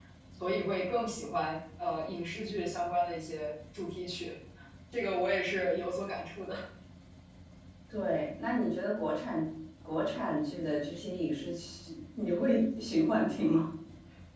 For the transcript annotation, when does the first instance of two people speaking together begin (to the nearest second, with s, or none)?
none